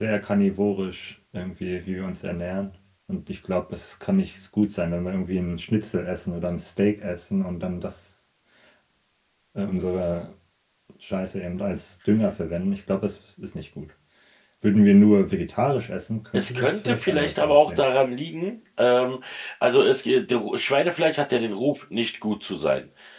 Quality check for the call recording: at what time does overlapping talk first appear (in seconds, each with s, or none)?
16.3 s